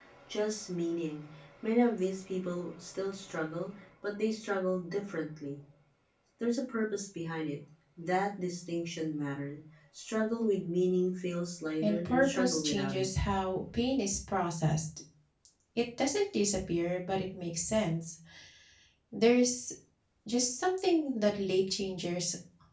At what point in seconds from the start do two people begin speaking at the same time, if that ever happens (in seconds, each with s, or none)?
11.8 s